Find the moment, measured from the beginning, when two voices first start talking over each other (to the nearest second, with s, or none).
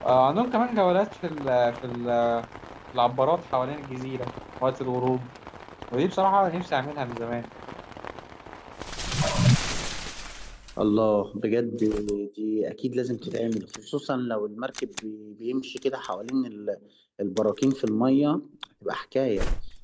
none